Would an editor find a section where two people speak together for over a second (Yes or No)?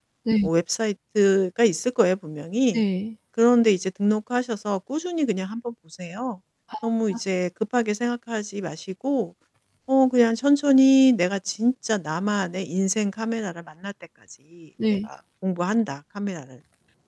No